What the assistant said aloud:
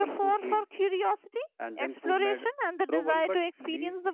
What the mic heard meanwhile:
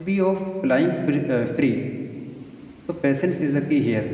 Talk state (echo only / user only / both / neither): user only